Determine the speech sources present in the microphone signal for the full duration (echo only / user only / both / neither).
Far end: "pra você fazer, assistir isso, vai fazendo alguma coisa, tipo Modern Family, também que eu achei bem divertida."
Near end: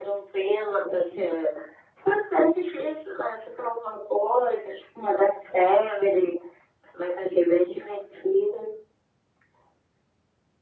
echo only